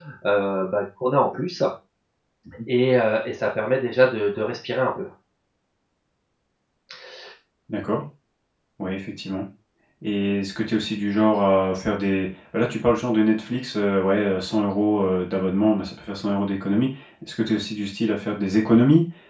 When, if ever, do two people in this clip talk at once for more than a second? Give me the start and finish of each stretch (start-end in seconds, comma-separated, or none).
none